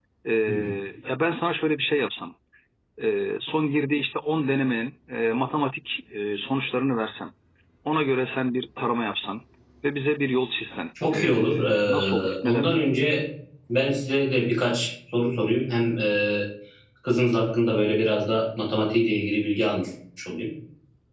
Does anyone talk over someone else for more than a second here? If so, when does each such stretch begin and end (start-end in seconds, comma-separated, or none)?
11.1-12.8